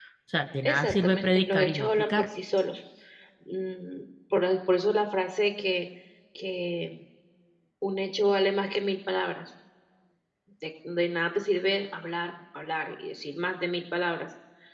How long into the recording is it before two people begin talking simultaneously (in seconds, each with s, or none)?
0.6 s